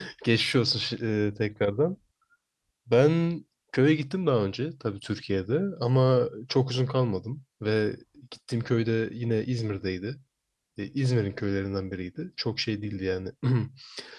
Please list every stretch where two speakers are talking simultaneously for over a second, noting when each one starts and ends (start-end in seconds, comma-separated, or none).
none